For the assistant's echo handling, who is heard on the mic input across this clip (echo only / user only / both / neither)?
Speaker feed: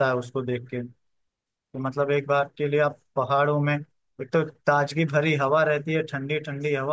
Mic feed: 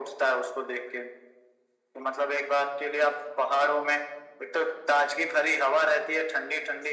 echo only